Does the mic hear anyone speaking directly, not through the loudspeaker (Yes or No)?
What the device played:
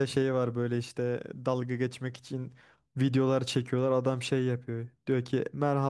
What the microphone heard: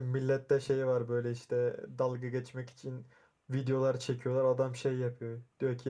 No